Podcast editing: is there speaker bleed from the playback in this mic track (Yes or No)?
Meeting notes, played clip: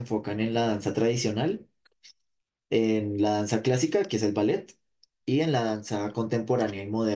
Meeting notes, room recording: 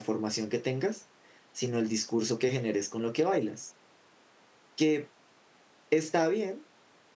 No